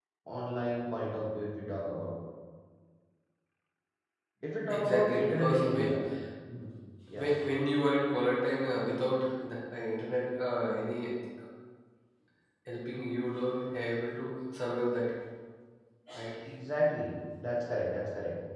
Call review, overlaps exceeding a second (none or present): present